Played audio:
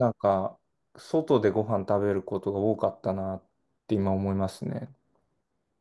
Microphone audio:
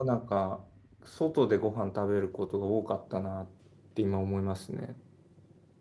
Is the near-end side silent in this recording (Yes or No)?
Yes